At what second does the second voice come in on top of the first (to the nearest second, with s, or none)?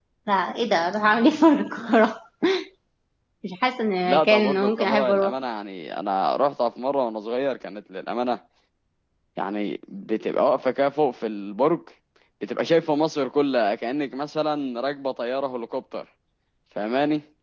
4 s